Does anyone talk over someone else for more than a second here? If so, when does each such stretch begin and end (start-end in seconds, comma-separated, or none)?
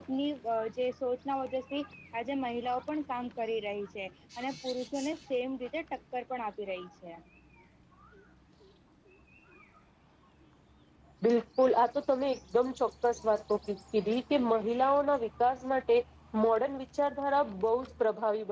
none